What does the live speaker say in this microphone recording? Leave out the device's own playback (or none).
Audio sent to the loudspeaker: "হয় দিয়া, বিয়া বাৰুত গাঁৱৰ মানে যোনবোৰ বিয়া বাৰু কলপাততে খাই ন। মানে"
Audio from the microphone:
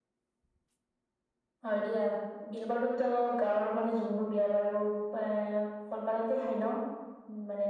none